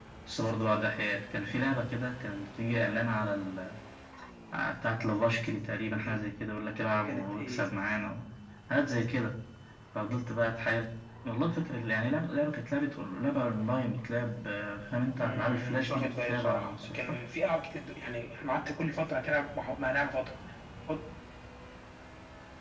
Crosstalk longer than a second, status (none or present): present